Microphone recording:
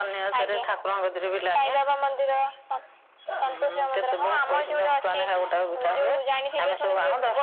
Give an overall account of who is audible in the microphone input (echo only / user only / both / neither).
echo only